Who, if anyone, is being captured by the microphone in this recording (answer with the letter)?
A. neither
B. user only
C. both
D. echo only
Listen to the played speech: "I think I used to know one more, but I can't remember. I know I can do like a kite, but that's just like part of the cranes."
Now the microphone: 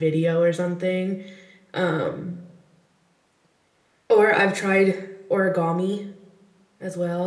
B